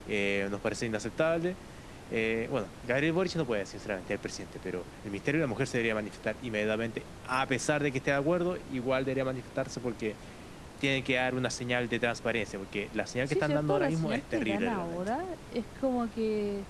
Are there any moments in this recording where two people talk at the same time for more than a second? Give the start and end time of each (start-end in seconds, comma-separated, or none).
13.3-15.2